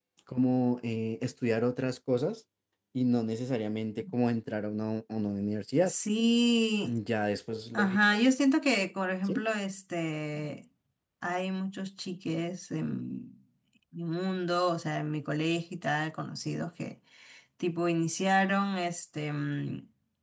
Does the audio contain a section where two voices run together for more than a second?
No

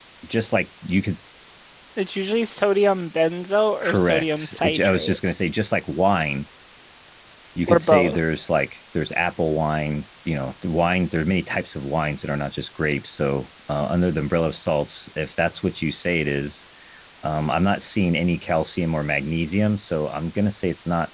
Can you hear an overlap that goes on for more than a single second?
Yes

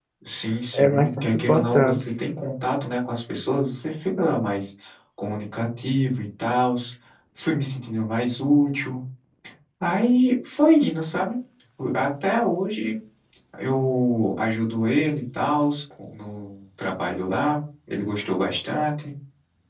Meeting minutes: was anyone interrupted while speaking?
Yes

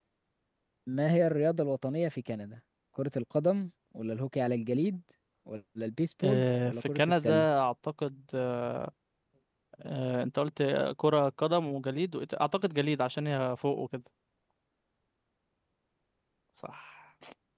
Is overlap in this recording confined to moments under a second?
No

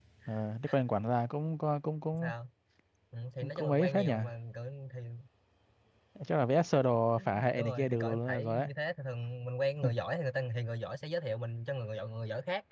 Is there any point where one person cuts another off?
Yes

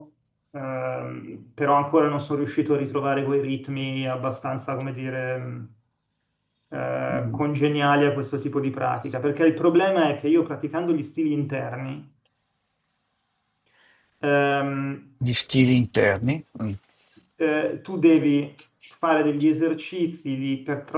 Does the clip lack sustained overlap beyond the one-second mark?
Yes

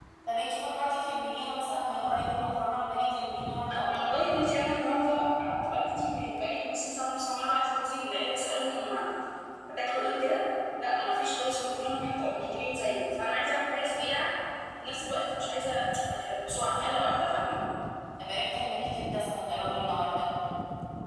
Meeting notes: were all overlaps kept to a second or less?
Yes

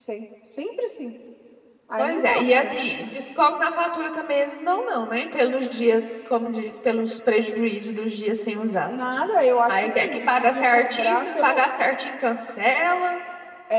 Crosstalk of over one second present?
Yes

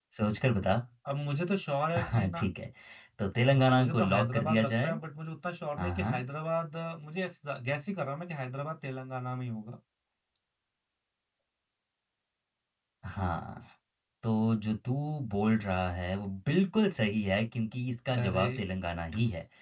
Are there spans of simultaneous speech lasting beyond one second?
Yes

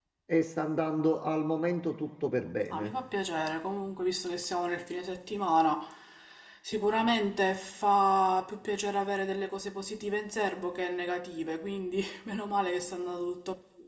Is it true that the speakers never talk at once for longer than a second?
Yes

